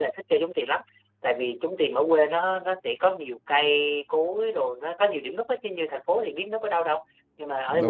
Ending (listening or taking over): listening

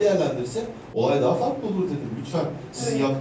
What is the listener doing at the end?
listening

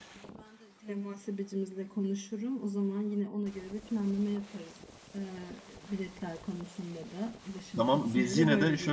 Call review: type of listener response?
taking over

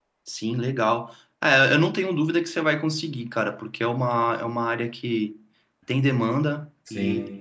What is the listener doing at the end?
listening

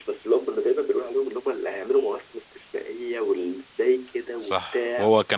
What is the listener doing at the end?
taking over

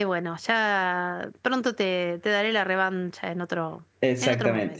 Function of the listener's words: taking over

